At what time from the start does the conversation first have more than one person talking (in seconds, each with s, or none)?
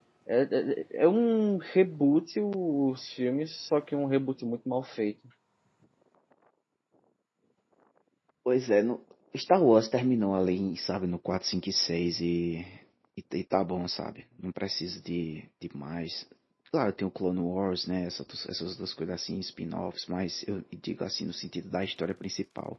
none